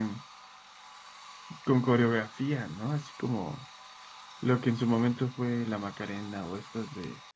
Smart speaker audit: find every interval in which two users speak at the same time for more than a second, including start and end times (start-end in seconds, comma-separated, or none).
none